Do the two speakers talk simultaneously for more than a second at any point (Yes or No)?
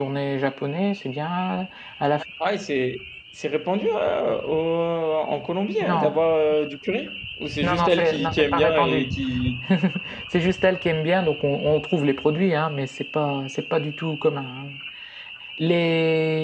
Yes